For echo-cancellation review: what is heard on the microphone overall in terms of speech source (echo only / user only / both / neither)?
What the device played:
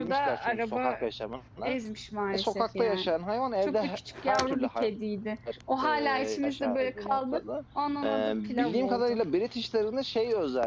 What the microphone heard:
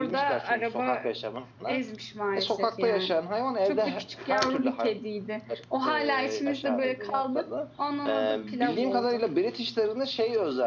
echo only